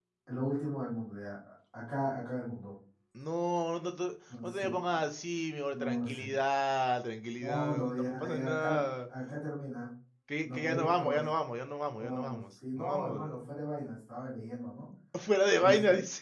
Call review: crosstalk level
present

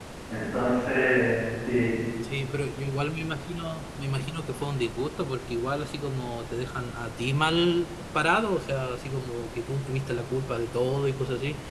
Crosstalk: none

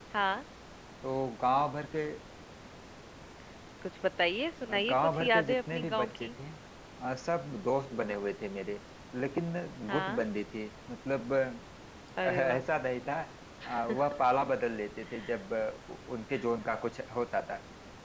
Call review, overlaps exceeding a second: present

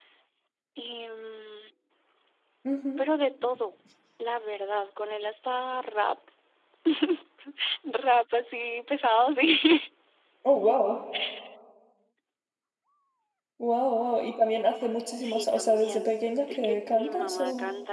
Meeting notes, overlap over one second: present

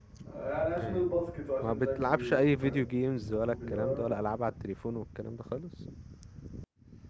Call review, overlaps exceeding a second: present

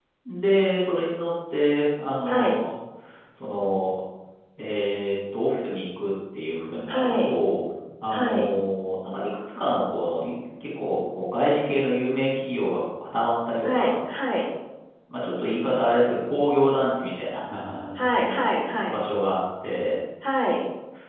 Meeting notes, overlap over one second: none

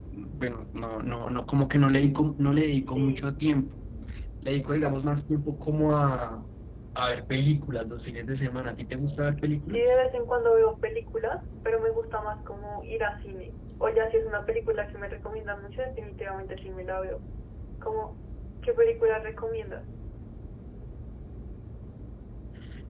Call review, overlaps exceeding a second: none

